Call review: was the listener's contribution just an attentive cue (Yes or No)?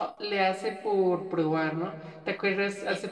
Yes